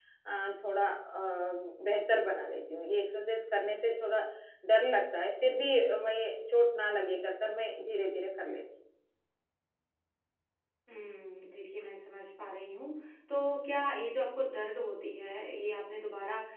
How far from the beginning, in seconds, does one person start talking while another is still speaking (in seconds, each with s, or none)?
none